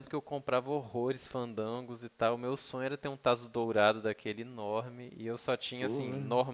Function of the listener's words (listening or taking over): listening